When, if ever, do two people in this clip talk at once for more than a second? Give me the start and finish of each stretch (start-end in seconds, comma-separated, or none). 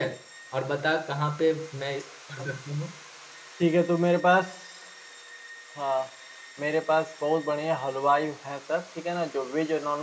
none